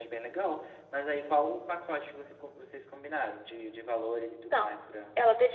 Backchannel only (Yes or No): No